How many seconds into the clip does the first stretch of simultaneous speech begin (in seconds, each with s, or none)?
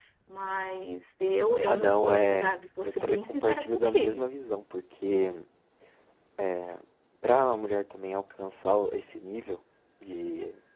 1.7 s